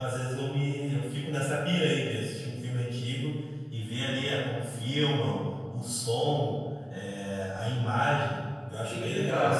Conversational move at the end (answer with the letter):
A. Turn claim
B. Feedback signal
A